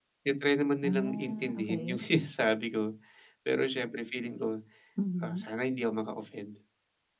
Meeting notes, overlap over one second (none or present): present